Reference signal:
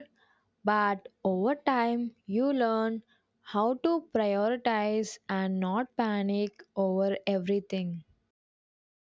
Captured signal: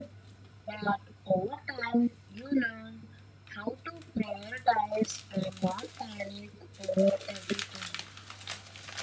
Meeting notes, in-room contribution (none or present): none